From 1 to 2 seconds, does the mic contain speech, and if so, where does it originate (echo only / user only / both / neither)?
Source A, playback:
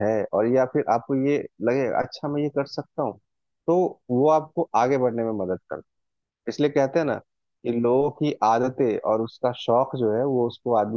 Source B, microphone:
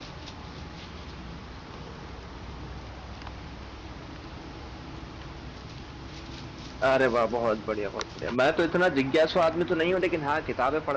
neither